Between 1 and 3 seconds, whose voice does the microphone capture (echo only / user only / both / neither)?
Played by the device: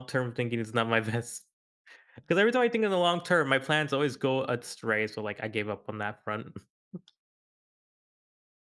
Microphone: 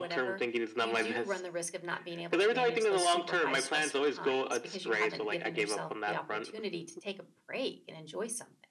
both